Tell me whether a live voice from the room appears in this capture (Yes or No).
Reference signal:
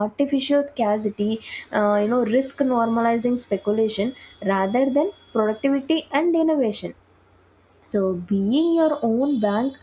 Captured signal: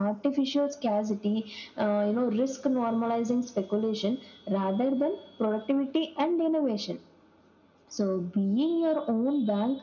No